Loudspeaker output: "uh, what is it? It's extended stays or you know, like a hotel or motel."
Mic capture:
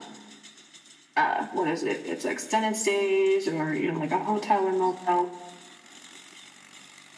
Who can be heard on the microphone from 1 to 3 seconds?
echo only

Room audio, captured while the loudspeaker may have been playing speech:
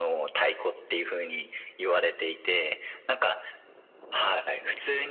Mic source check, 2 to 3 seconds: echo only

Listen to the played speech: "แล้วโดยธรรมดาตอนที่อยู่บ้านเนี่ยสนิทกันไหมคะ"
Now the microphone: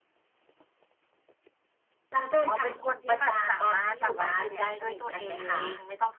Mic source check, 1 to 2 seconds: neither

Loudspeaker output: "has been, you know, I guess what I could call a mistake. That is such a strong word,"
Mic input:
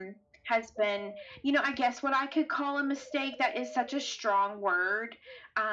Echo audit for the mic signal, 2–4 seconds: echo only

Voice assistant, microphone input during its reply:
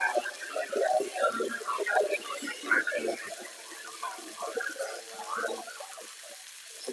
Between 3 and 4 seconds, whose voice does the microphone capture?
echo only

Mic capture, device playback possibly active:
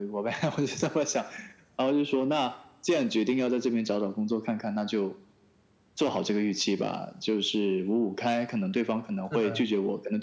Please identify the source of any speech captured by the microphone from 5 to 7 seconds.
echo only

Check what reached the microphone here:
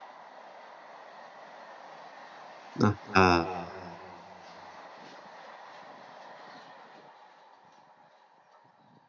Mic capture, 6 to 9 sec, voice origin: neither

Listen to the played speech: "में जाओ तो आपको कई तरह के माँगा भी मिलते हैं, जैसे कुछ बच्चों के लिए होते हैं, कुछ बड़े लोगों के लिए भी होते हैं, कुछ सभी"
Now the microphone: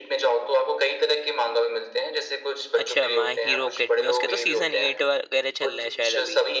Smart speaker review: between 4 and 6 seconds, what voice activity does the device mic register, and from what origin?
both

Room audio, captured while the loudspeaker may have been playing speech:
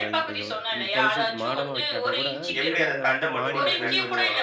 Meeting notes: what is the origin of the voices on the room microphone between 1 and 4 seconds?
both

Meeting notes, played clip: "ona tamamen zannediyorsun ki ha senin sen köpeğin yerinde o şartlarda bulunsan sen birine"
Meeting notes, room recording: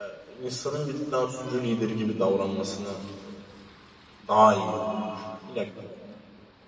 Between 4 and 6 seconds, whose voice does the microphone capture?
user only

